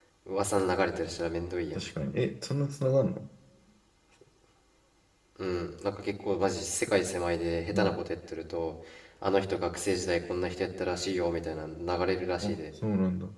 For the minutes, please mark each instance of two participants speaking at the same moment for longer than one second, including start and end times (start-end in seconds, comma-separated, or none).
none